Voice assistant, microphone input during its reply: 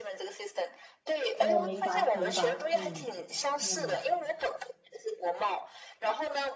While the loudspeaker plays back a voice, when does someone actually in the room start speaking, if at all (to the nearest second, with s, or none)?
1 s